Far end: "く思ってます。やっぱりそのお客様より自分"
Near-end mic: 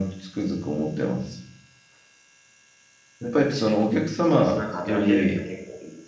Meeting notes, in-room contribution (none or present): present